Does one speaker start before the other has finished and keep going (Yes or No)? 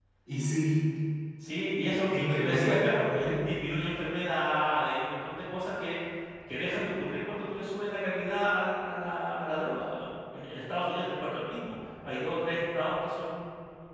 Yes